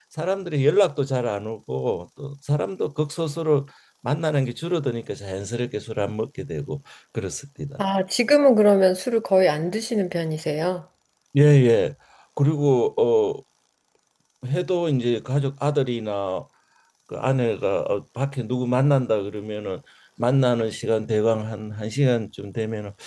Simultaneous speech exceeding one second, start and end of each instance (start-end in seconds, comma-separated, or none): none